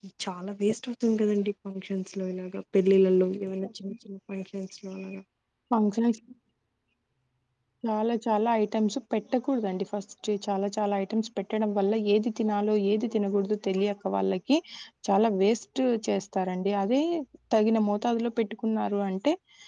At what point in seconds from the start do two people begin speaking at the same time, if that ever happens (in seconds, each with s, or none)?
none